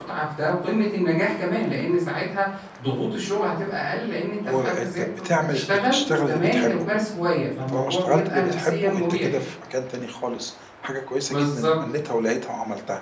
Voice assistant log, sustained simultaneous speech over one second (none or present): present